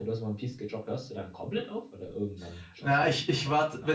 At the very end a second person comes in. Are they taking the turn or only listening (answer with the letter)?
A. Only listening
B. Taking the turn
B